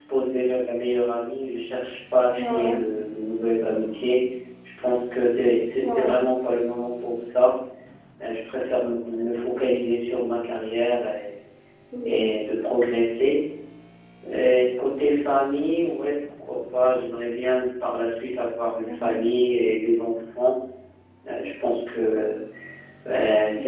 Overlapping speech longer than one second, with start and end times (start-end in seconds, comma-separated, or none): none